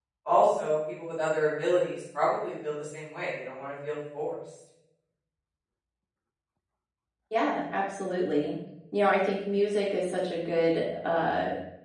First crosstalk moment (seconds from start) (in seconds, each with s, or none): none